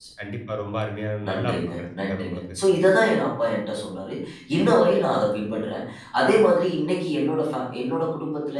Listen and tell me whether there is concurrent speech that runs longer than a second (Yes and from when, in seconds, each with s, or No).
Yes, from 1.3 s